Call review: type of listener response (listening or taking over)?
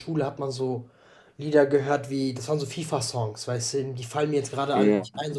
listening